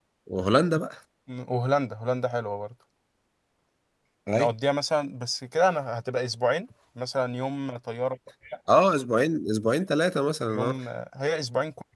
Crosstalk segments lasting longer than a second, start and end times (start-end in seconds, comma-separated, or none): none